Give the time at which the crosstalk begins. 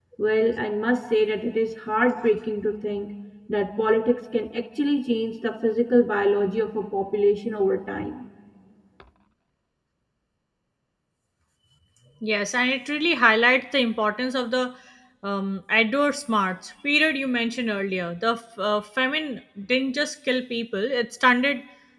none

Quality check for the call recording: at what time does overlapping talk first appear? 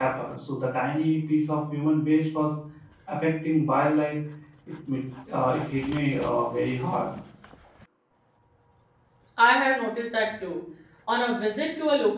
none

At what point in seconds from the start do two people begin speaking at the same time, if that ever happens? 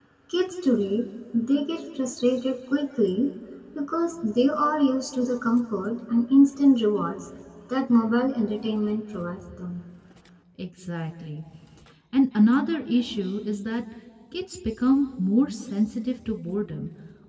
none

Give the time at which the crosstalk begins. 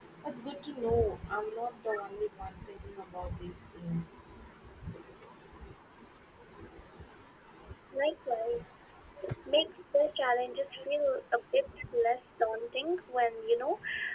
none

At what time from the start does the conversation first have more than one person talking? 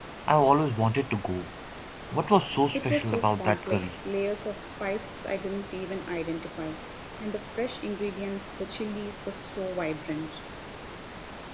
2.7 s

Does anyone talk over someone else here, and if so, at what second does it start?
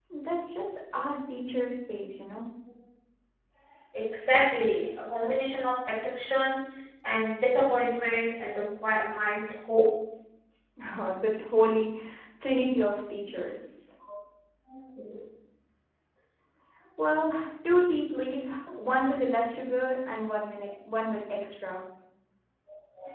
none

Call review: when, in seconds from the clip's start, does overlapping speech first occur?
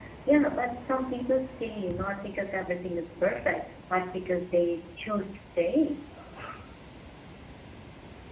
none

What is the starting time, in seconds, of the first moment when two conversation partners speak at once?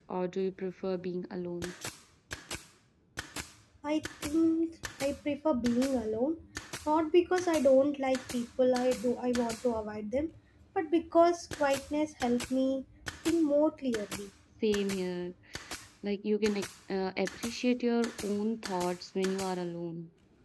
none

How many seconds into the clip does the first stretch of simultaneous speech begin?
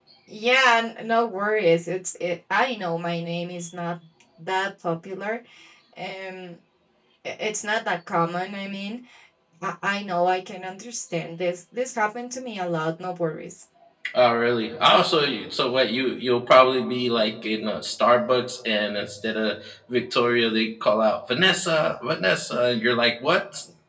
none

